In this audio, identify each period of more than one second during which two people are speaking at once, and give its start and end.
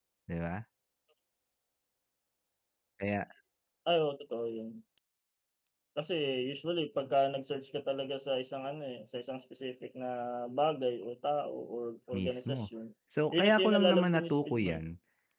13.3-14.8

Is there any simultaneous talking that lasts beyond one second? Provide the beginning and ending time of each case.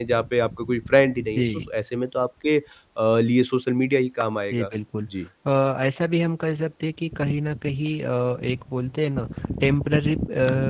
none

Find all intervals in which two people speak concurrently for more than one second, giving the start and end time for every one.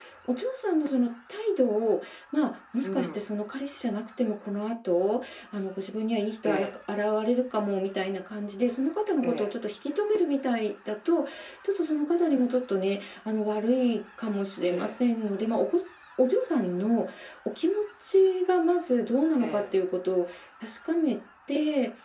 none

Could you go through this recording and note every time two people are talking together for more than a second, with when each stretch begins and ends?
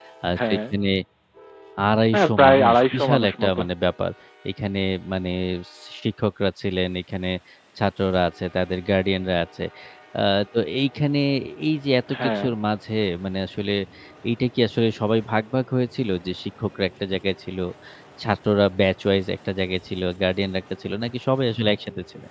2.1-3.6

